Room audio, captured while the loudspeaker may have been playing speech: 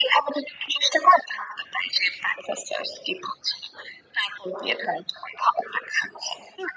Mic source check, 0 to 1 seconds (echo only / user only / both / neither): echo only